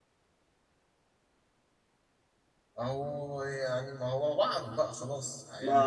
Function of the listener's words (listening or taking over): taking over